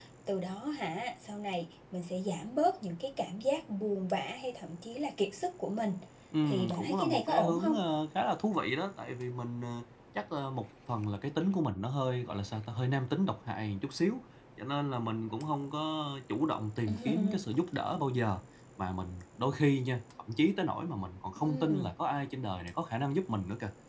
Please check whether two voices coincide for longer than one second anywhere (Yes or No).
Yes